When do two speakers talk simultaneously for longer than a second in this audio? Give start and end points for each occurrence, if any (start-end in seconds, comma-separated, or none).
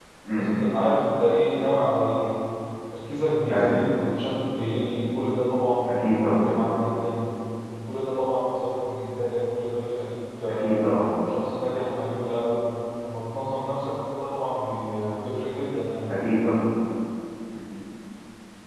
none